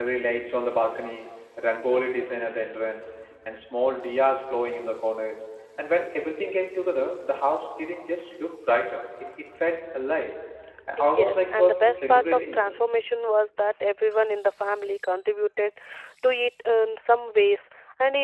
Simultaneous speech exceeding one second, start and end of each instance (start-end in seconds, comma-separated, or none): 11.2-12.8